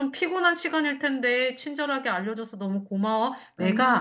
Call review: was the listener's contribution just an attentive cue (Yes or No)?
Yes